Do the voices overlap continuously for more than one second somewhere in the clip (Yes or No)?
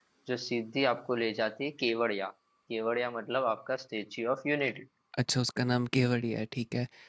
No